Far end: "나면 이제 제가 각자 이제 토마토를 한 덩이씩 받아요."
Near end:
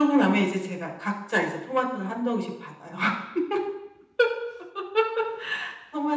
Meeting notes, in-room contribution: none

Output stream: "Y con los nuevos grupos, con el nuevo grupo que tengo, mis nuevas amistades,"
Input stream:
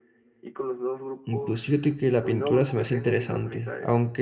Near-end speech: present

